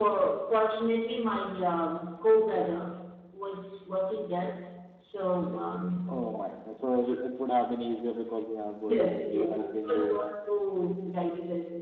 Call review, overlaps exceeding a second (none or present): present